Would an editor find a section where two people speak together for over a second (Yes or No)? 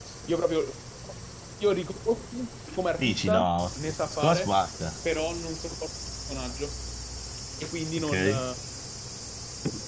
Yes